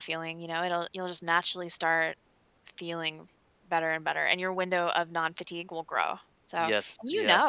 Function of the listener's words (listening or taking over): listening